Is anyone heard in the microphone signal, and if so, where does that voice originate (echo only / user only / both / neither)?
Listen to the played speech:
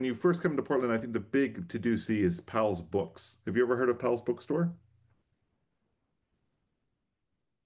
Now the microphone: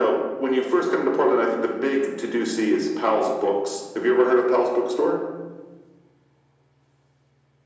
echo only